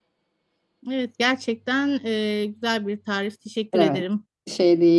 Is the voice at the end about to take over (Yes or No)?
Yes